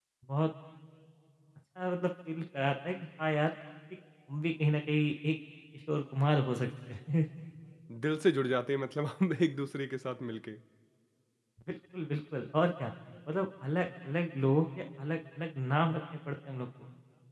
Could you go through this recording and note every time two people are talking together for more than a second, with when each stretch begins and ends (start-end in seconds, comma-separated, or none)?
none